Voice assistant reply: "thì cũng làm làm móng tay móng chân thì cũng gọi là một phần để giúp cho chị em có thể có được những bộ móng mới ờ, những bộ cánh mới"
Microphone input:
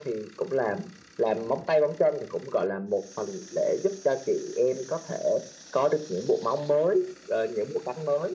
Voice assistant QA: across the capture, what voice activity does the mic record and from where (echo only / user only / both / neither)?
echo only